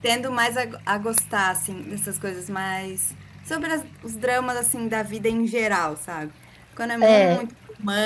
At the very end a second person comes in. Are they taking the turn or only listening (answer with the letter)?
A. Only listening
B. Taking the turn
A